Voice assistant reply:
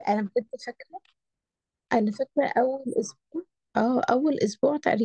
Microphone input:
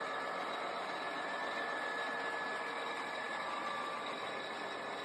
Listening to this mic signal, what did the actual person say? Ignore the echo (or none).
none